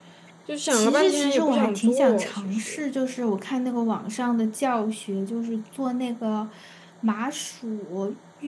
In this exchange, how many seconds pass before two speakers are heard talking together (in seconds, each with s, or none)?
0.7 s